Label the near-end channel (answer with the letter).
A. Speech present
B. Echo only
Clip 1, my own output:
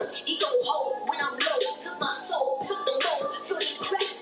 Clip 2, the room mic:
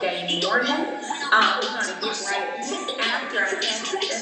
A